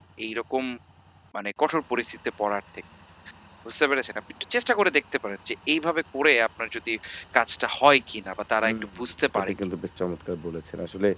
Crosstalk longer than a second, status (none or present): none